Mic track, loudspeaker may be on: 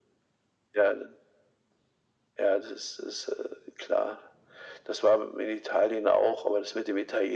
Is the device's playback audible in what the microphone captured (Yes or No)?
Yes